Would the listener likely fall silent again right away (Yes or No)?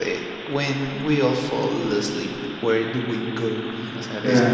Yes